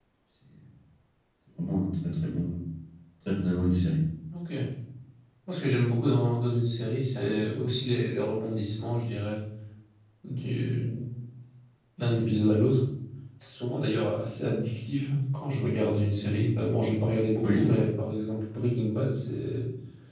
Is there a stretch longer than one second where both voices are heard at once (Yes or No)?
No